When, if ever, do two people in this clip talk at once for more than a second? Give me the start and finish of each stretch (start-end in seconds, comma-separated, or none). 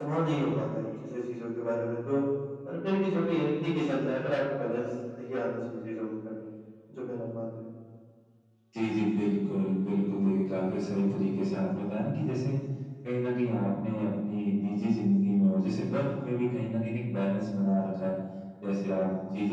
none